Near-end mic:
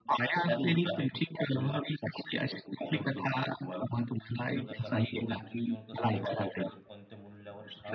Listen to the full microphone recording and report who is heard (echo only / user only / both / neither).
both